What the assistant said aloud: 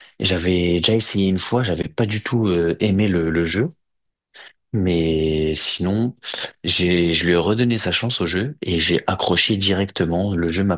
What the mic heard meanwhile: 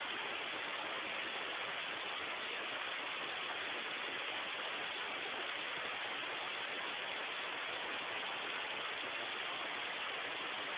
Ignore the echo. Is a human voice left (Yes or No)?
No